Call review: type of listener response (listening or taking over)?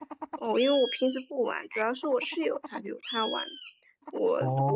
listening